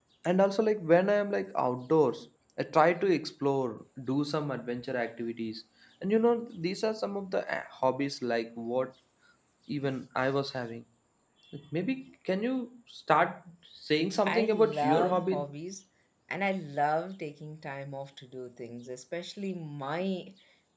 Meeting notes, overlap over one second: present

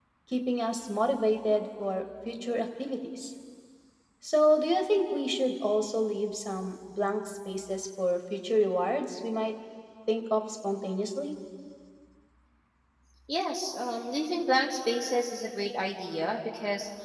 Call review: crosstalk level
none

